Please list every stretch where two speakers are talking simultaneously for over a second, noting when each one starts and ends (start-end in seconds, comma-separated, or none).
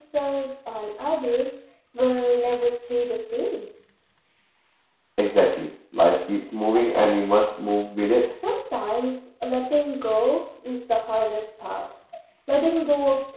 none